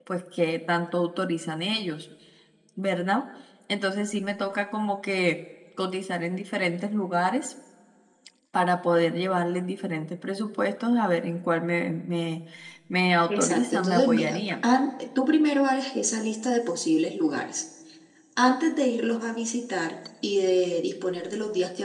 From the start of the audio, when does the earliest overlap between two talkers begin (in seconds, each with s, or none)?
13.3 s